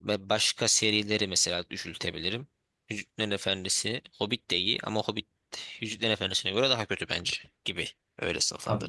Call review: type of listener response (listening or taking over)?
taking over